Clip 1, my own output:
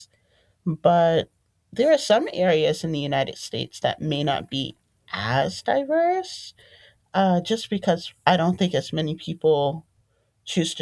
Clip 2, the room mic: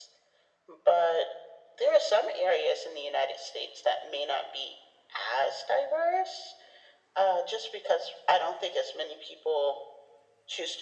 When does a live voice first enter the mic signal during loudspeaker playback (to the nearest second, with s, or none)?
none